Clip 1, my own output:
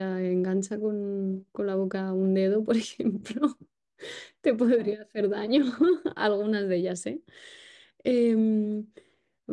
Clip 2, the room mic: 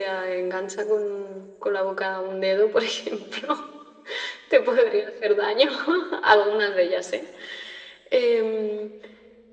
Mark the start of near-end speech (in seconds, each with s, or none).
none